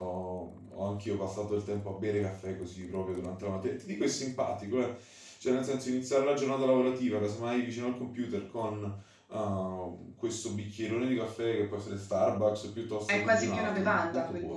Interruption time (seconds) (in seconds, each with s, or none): 13.0 s